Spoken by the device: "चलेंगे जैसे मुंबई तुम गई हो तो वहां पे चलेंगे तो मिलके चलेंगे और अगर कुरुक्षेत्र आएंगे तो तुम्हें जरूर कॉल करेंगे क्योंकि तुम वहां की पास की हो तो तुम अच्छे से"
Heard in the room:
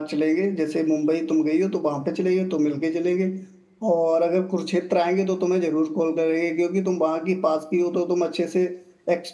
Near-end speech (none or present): none